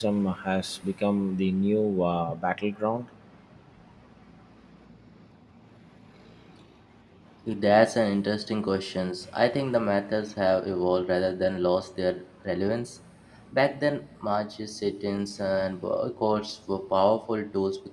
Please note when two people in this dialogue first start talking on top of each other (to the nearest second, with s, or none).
none